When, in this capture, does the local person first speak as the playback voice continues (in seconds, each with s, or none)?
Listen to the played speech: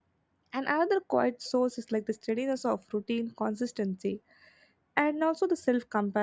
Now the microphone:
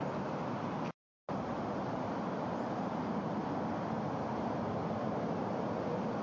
none